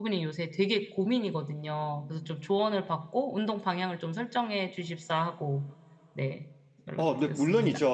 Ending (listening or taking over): taking over